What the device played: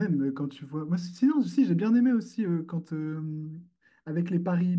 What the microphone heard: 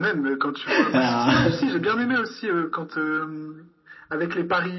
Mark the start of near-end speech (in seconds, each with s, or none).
0.6 s